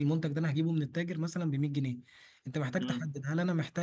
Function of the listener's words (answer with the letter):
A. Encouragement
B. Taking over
A